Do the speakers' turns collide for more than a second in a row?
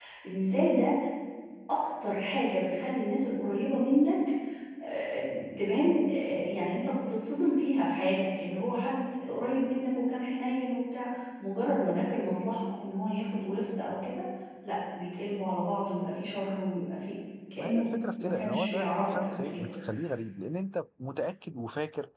Yes, from 17.6 s

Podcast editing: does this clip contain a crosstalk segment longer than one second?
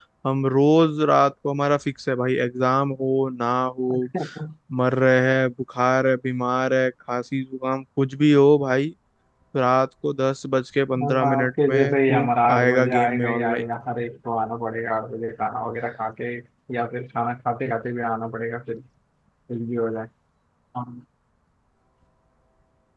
Yes, from 10.9 s

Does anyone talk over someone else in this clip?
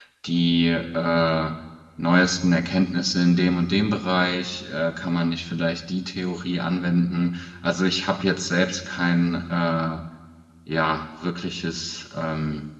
No

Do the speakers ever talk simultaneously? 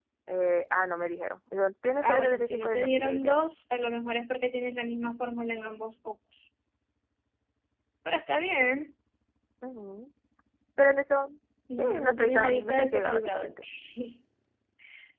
Yes, from 2.0 s

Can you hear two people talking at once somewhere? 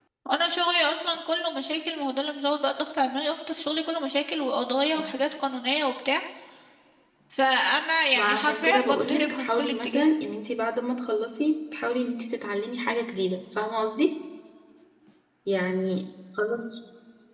Yes, from 8.2 s

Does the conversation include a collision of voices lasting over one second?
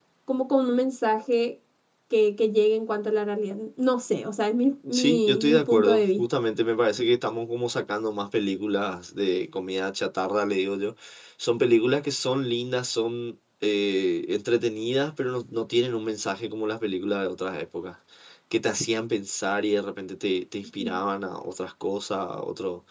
Yes, from 4.9 s

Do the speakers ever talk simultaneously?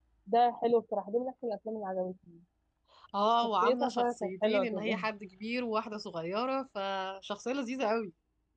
Yes, from 3.6 s

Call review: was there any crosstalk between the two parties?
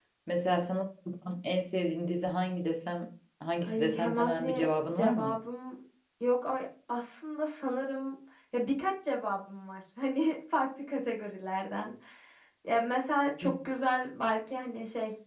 Yes, from 3.6 s

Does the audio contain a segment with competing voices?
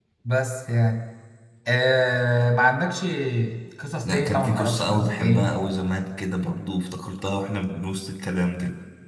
Yes, from 4.0 s

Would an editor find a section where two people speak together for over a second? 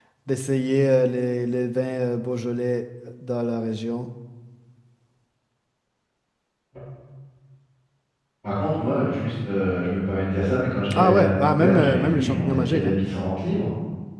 Yes, from 10.9 s

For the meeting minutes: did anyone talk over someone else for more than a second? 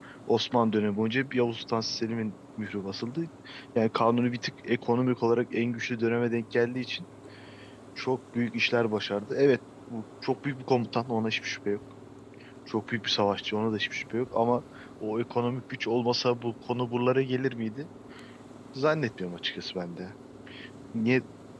No

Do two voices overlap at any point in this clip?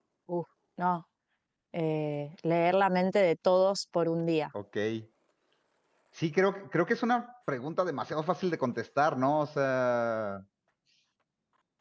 No

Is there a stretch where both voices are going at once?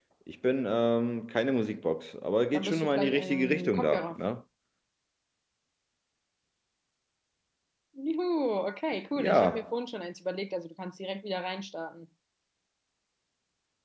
Yes, from 2.5 s

